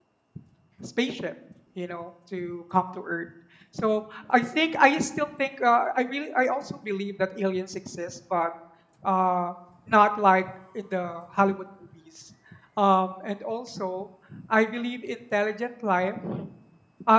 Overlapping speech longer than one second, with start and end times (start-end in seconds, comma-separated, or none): none